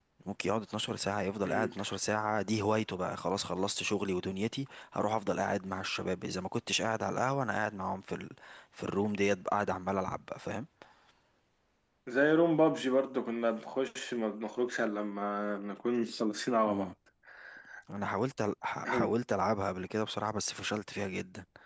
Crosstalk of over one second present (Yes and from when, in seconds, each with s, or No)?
No